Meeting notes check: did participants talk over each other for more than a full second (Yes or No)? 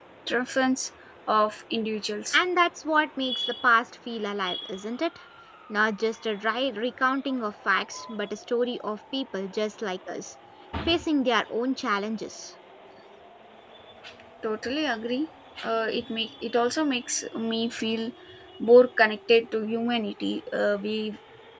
No